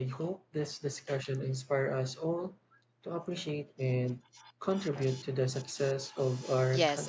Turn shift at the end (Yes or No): Yes